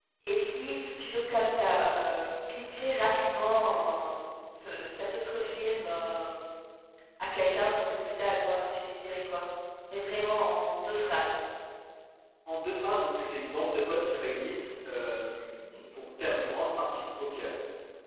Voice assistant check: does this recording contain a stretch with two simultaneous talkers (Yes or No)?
No